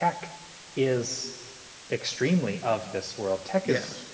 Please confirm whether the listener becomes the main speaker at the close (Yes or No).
No